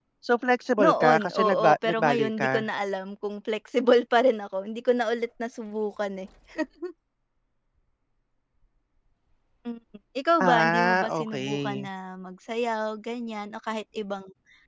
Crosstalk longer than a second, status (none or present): present